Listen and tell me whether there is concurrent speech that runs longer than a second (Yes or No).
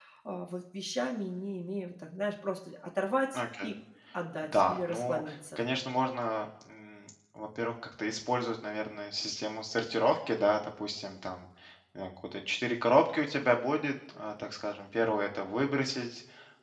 Yes